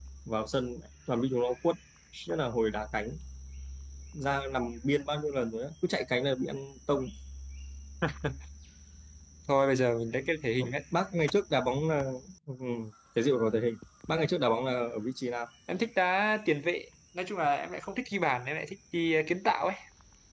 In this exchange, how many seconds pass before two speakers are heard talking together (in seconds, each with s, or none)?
none